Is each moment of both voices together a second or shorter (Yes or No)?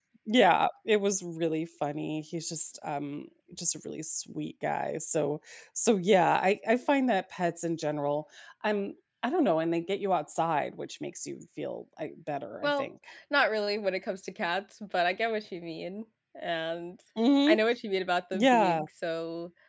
Yes